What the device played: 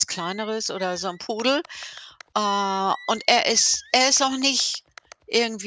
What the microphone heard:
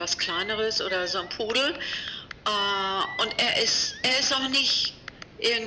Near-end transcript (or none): none